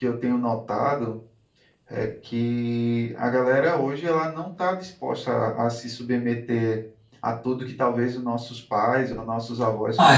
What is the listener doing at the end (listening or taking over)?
taking over